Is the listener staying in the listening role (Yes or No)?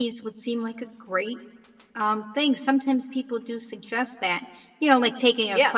Yes